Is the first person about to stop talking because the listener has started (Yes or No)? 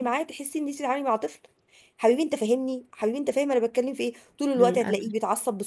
No